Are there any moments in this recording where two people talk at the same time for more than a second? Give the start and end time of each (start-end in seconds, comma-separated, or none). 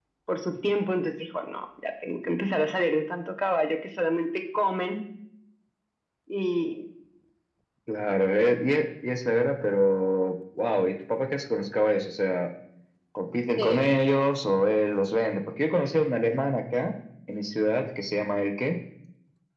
none